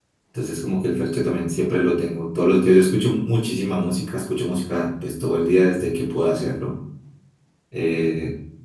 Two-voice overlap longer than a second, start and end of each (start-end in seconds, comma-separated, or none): none